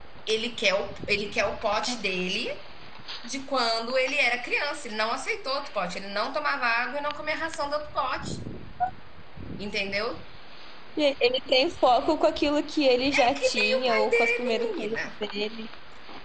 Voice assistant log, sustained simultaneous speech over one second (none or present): present